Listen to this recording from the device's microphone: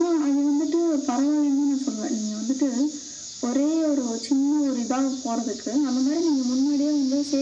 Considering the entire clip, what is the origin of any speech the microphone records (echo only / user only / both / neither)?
echo only